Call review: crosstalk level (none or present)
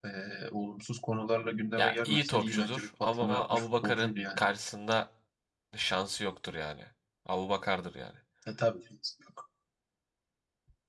present